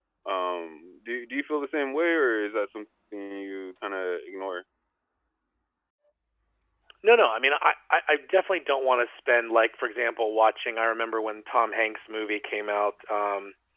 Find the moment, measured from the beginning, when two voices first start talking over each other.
none

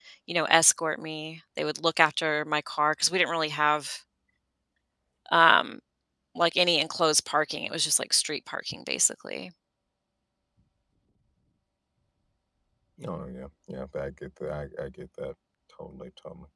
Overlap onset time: none

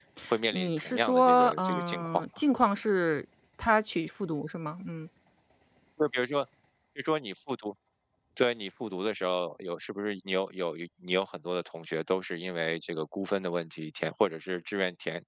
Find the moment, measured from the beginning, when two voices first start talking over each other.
0.5 s

